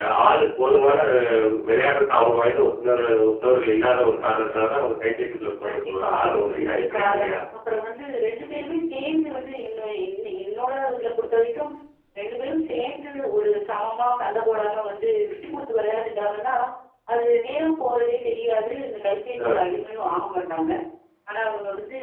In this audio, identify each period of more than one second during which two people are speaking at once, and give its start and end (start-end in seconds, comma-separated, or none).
5.7-7.4